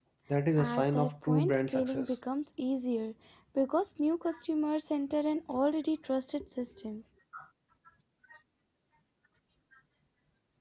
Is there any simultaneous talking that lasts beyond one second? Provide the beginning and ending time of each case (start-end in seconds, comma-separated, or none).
0.6-2.1